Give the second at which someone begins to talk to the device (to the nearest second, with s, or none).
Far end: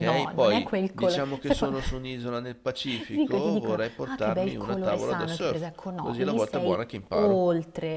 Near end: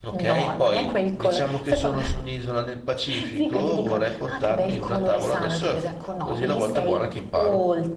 none